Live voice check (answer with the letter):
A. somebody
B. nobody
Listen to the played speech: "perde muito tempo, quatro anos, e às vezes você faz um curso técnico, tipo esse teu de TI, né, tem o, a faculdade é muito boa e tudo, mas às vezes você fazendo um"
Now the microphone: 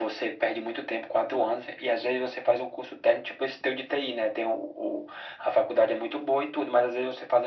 B